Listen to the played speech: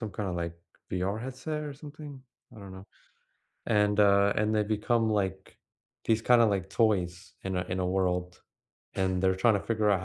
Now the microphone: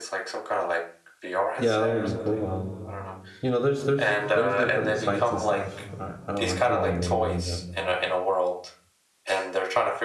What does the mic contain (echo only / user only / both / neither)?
both